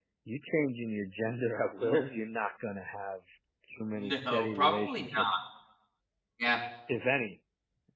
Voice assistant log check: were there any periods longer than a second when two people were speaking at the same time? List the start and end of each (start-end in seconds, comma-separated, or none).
3.9-5.4